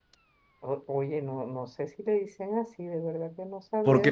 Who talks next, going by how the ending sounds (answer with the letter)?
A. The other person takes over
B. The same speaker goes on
A